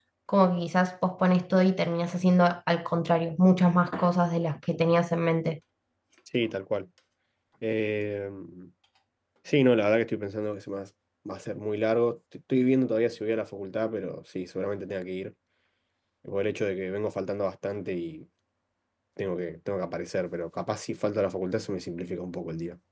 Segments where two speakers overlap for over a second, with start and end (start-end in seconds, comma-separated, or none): none